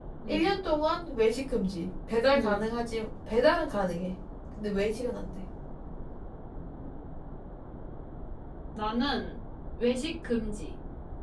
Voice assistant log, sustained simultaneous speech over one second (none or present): none